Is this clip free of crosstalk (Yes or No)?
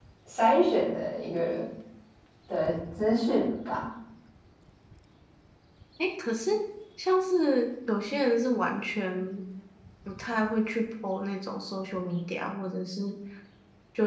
Yes